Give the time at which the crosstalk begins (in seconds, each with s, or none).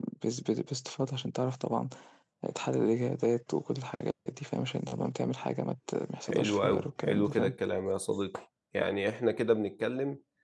6.3 s